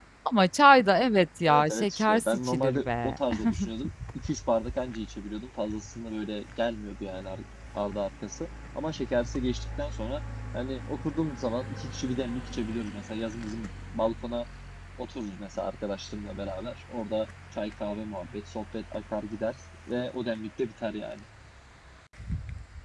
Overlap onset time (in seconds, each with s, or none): 1.5 s